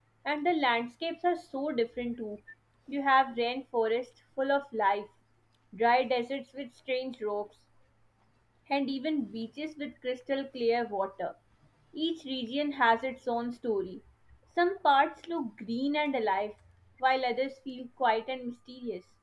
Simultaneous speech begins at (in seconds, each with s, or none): none